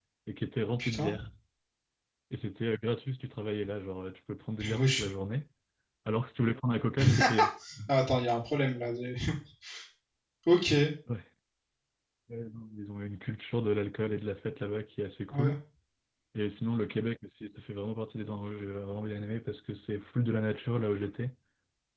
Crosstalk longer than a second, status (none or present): none